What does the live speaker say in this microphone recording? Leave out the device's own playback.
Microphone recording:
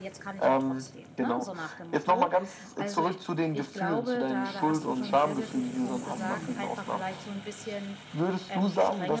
Mhm.

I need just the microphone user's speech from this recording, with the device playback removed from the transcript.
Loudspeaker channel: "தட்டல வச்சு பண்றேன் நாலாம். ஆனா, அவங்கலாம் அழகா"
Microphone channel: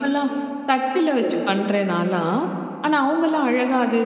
சரிங்க.

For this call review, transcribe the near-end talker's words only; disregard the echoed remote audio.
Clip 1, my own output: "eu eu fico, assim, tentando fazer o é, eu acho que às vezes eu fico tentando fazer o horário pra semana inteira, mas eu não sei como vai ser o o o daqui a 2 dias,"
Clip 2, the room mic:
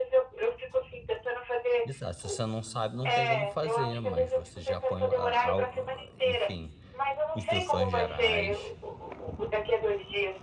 Exato, se você não sabe não tem como fazer, mas você já apanhou a a u u enfim, instruções gerais.

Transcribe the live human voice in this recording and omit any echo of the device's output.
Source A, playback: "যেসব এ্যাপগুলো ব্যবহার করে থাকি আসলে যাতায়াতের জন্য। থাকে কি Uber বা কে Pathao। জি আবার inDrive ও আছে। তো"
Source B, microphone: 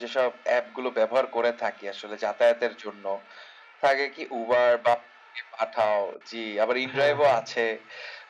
হ্যাঁ, হ্যাঁ।

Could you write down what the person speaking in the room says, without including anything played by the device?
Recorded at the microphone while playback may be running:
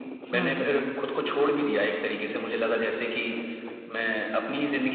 हुँ, हुँ।

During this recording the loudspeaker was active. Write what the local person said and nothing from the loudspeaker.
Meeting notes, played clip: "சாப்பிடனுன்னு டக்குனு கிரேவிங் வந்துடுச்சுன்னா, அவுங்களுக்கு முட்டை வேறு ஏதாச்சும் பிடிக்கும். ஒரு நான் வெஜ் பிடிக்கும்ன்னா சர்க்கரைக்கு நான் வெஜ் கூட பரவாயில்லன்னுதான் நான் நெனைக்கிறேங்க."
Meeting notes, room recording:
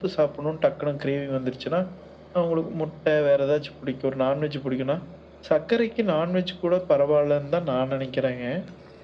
none

